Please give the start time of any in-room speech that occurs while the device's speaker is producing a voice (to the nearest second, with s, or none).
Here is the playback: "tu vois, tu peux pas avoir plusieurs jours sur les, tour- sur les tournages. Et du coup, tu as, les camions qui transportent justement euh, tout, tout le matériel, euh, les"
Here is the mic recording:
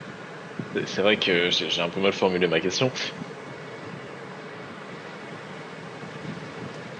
1 s